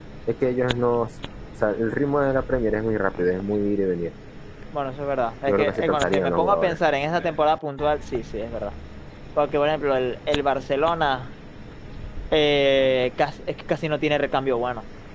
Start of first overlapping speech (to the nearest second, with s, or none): 5 s